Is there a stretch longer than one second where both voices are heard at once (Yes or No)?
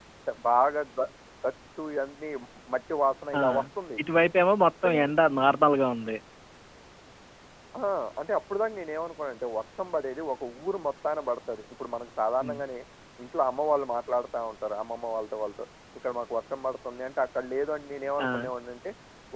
No